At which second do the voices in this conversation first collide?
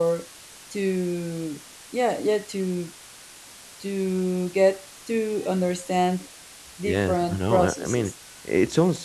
7 s

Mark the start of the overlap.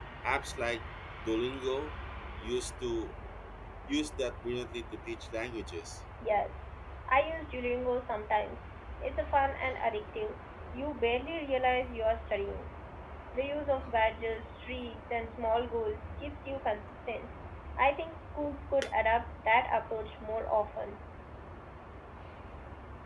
none

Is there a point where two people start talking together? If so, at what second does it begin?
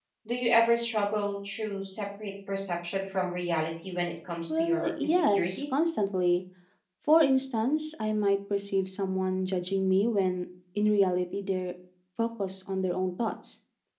4 s

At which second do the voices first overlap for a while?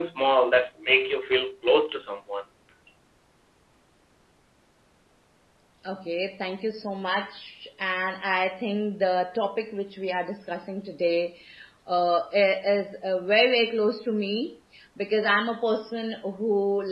none

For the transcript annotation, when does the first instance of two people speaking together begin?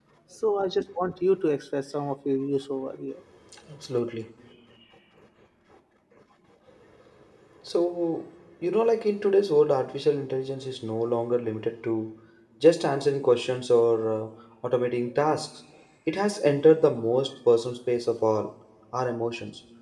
none

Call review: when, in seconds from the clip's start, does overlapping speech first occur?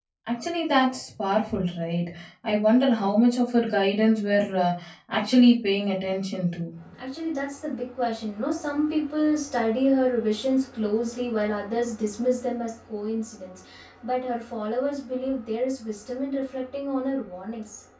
none

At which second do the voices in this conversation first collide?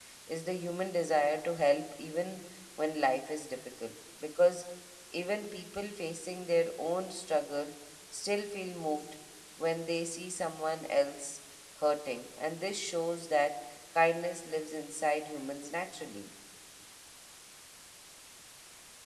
none

